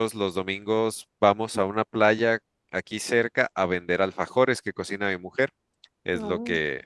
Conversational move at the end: listening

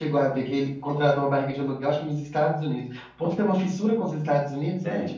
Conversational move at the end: taking over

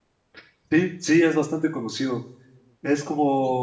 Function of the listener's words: listening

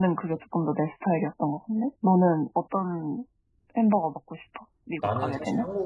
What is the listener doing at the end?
taking over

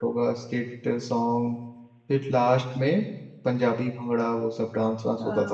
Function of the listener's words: taking over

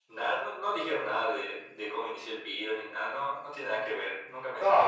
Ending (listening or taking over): taking over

